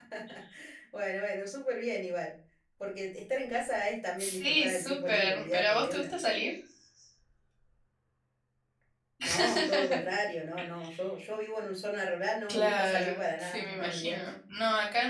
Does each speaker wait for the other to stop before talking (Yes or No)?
No